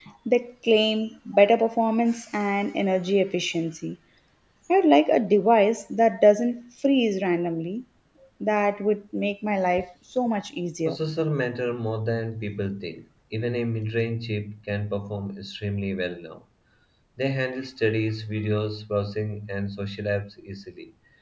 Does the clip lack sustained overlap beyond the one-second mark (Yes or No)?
Yes